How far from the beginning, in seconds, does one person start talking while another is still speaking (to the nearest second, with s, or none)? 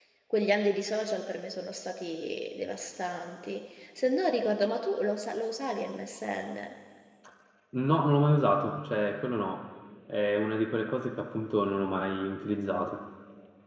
none